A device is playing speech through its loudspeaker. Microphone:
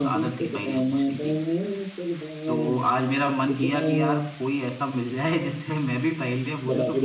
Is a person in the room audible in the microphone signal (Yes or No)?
Yes